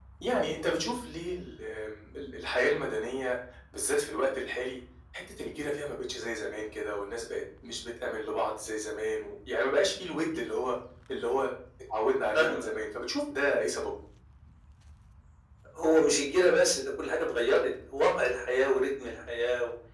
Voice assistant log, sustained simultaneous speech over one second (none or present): none